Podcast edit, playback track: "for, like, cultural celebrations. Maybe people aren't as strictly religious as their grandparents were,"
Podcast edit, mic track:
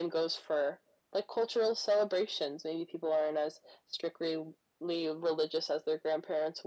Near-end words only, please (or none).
none